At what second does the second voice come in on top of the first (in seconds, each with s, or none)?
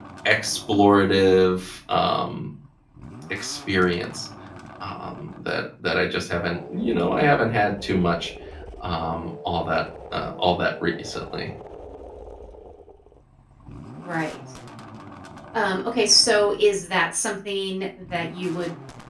none